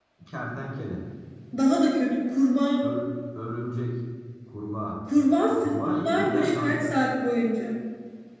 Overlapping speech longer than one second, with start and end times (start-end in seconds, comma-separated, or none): 5.6-6.9